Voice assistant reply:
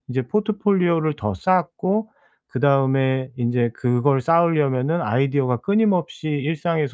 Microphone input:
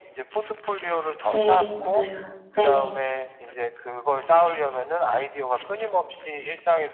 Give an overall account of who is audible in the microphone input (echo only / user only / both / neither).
both